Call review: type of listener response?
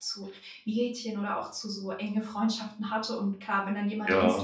listening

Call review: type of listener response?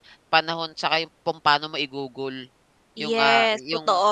taking over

